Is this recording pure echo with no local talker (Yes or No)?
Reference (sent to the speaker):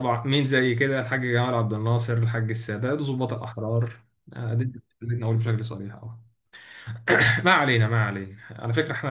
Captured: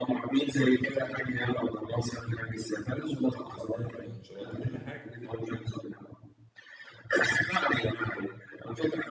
No